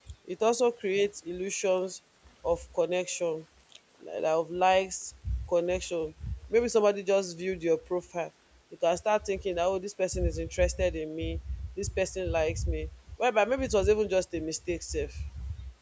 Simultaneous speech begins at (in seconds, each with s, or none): none